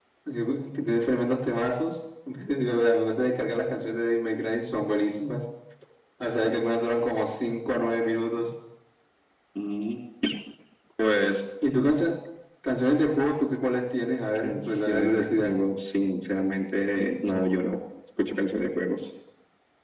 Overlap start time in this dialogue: 14.3 s

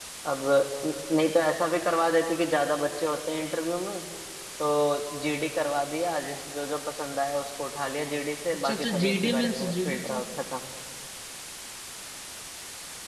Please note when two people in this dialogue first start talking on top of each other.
8.5 s

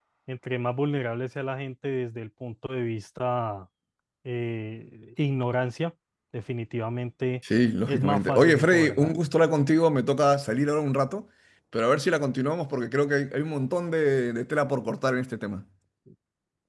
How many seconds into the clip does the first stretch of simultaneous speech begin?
7.9 s

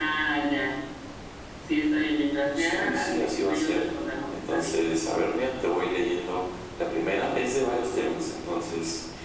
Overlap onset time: 2.6 s

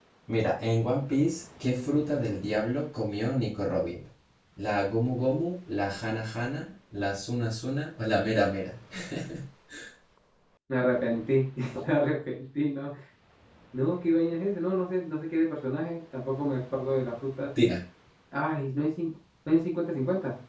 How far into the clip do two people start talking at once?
none

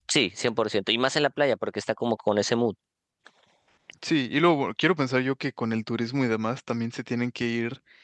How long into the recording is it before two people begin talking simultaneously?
none

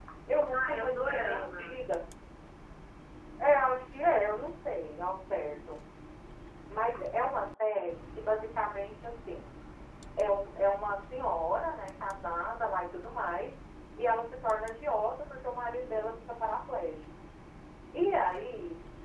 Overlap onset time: 0.5 s

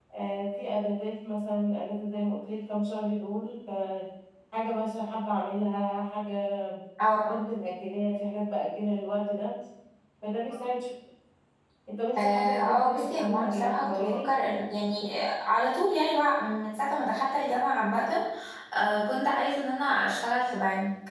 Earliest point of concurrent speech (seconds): 12.2 s

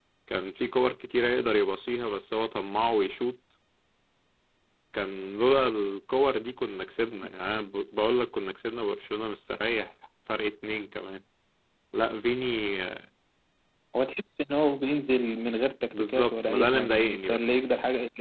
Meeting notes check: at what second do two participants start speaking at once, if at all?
15.9 s

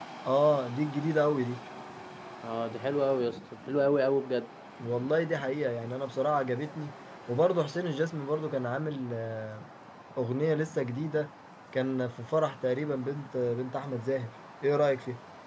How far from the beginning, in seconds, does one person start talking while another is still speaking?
none

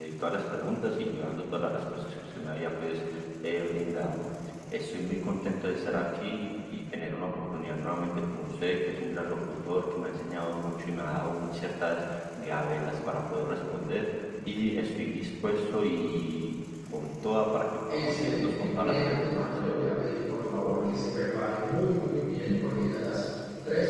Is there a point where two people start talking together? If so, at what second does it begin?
17.9 s

